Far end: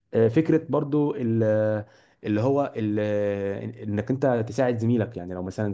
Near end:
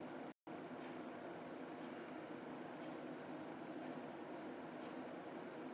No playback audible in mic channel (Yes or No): Yes